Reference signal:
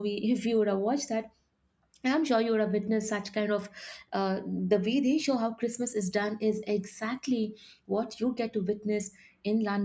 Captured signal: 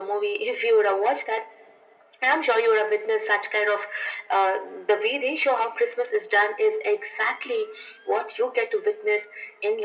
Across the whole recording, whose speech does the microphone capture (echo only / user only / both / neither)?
echo only